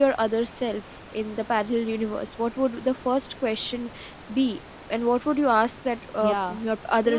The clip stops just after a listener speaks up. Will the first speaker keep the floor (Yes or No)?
No